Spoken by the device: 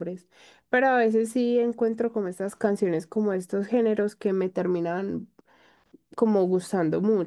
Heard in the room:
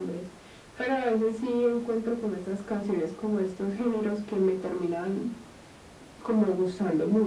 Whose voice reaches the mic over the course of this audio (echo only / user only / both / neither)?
echo only